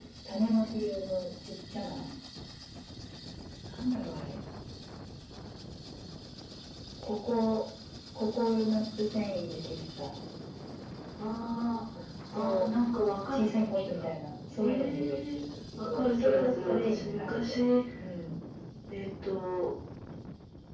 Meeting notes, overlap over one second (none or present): present